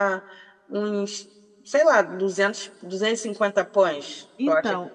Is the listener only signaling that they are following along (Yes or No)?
No